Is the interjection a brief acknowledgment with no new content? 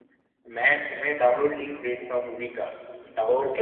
No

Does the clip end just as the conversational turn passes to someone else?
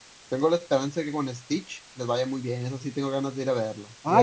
Yes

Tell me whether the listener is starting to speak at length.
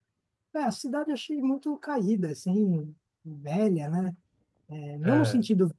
No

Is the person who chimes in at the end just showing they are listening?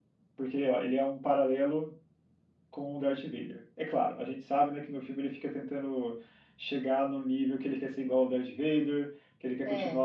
Yes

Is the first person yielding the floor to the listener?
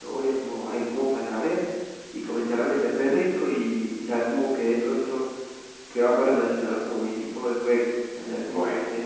Yes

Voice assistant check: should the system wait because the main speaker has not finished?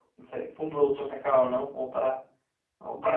No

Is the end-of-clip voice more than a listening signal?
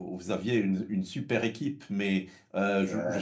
No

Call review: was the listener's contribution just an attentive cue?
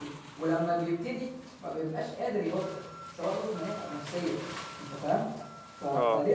Yes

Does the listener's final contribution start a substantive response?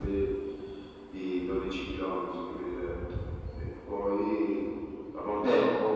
No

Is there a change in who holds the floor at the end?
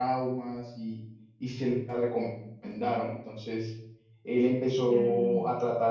No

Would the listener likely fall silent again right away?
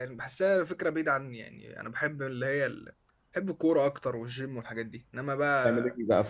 No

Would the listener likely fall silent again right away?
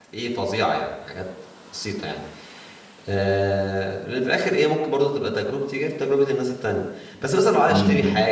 Yes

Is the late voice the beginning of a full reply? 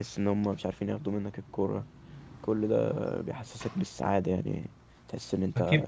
Yes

